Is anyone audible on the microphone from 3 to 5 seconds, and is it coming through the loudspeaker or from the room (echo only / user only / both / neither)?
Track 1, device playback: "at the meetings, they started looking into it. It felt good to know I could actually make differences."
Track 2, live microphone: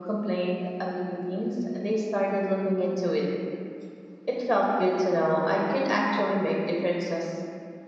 echo only